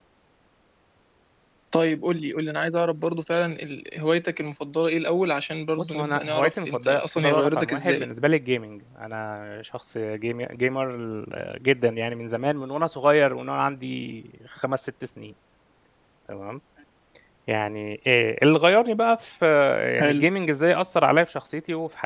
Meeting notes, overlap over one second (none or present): present